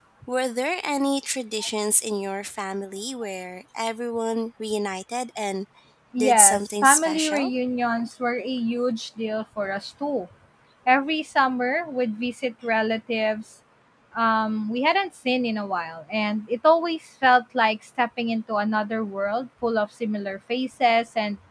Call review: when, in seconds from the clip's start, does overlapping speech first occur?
6 s

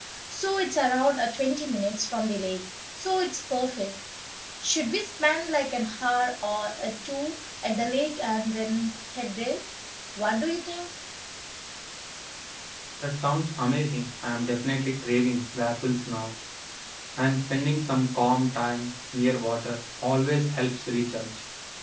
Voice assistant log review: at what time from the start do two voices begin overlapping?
none

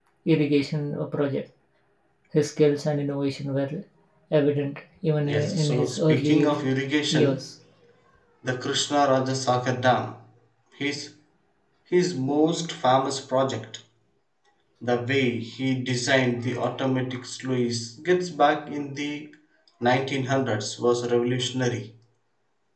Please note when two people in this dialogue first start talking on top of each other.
5 s

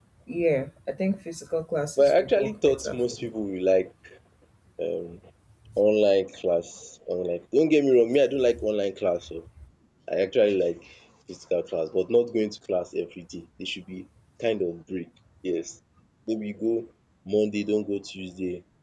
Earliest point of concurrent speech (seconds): 2 s

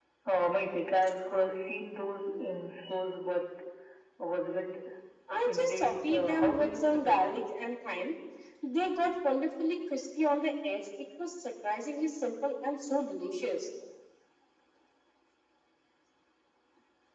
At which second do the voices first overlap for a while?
5 s

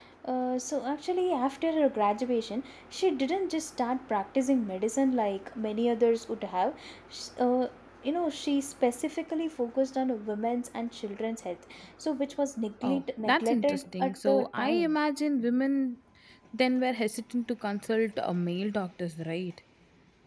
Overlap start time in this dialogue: 13 s

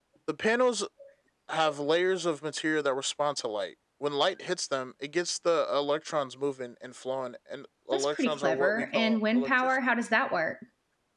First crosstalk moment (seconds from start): 8 s

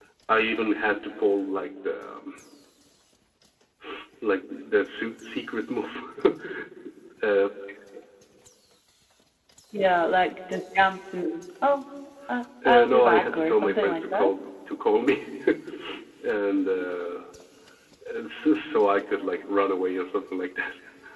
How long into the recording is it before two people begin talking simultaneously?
13 s

